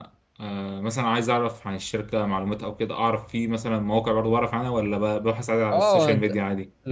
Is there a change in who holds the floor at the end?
Yes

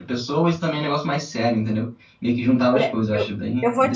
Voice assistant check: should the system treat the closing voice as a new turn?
Yes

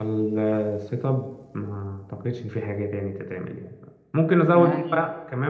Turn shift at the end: No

